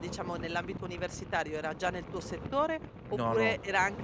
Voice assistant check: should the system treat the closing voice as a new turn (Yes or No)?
No